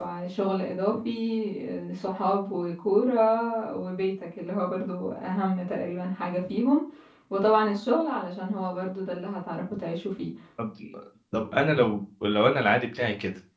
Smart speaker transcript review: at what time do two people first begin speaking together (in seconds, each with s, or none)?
none